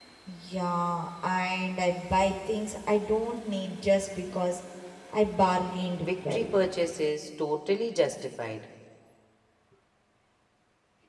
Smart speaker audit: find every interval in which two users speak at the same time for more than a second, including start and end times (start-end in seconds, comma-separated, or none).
none